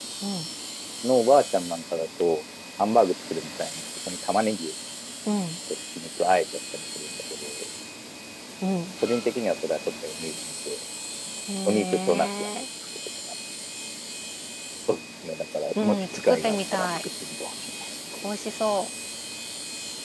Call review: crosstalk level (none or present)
present